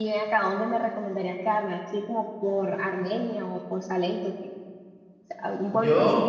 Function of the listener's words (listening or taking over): listening